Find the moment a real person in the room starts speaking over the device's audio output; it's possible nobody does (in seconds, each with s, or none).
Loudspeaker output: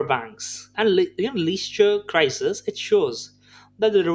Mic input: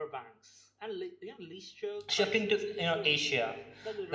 2.1 s